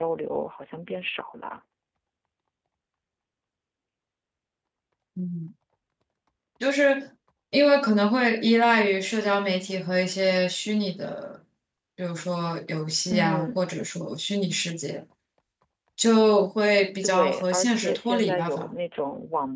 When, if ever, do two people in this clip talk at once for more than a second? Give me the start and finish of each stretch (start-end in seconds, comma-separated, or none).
17.0-18.8